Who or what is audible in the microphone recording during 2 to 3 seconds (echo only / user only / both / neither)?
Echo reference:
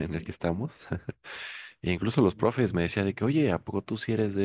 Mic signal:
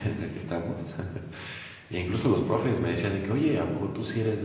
echo only